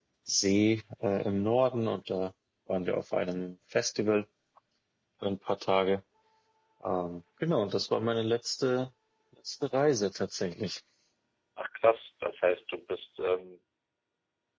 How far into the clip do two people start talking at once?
none

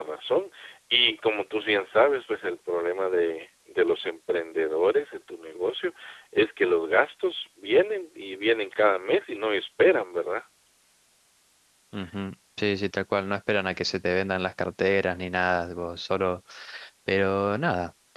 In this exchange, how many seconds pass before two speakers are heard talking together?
none

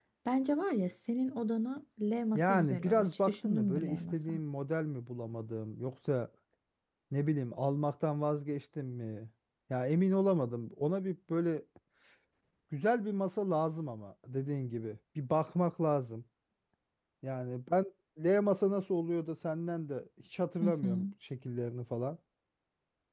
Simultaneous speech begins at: 2.4 s

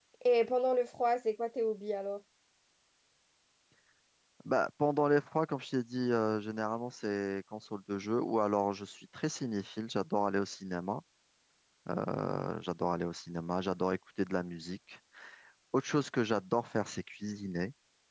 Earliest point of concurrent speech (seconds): none

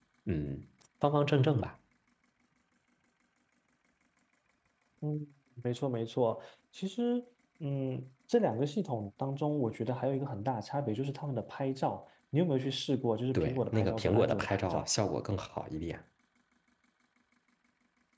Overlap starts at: 13.3 s

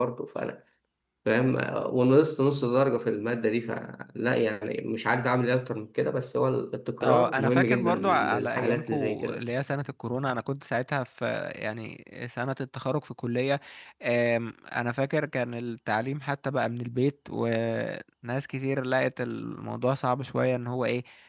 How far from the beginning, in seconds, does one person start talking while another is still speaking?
7.0 s

